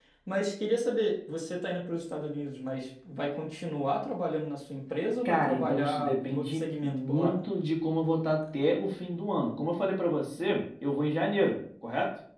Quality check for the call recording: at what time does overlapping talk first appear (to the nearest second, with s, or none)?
5 s